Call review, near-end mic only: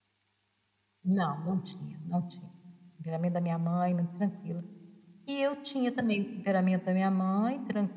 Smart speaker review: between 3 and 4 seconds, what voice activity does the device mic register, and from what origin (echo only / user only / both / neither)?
echo only